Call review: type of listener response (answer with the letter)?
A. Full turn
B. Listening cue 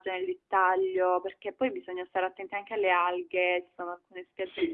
A